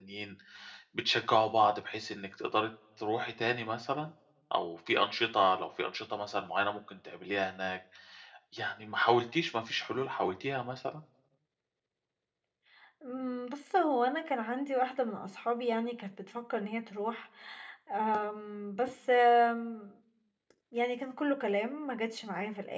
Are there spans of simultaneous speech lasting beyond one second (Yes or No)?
No